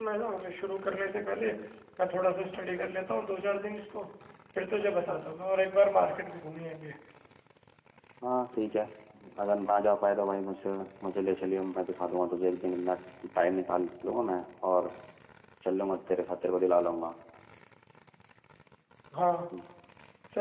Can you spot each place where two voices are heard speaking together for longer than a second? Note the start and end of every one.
none

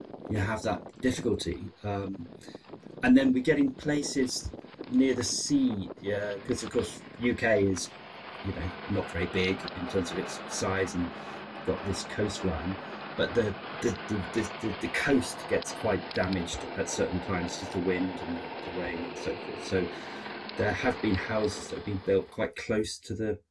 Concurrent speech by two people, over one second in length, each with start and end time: none

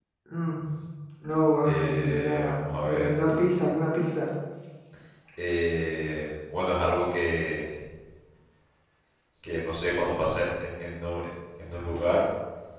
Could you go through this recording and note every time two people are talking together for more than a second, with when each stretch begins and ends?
1.6-3.1

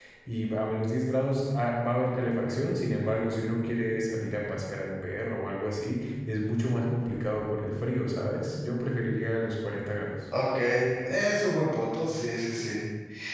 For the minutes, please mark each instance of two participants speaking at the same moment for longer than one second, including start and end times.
none

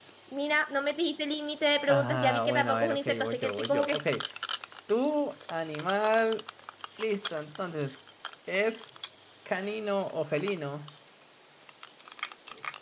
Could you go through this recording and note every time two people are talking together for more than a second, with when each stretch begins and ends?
1.9-4.0

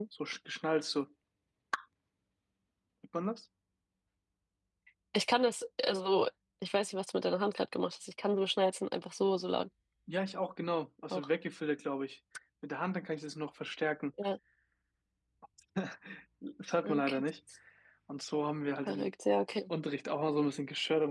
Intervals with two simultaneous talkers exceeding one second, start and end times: none

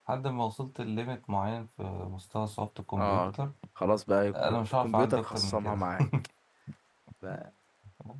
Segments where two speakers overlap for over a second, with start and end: 4.3-5.9

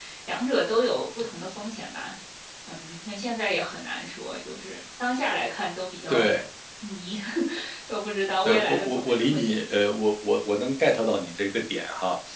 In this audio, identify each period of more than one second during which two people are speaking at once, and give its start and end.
8.4-9.7

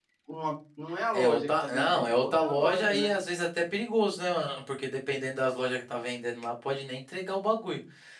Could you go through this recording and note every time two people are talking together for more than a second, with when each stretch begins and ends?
1.1-3.1

